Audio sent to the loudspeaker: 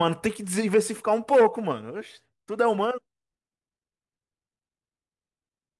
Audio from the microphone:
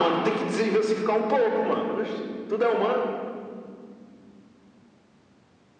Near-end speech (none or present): none